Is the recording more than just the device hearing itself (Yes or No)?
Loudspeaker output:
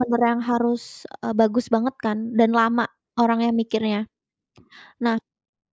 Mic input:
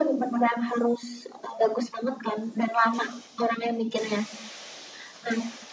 No